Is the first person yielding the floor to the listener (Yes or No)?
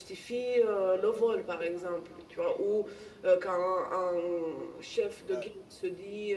No